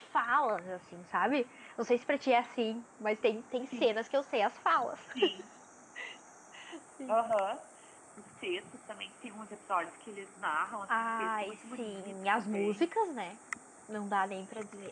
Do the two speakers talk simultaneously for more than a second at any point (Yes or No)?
Yes